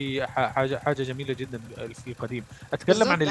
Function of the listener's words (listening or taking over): taking over